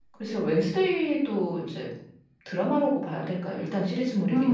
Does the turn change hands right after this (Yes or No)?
Yes